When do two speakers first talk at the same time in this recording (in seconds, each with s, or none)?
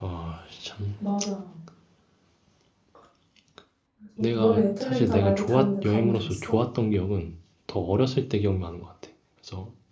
4.2 s